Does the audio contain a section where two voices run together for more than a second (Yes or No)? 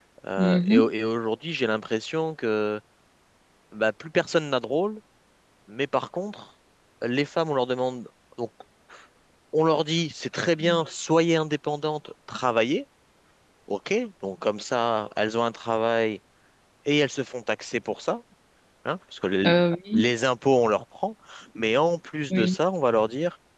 No